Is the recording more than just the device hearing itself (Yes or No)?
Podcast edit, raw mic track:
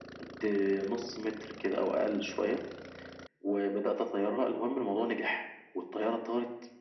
No